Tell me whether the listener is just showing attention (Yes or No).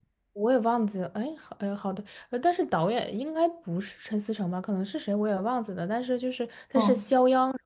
Yes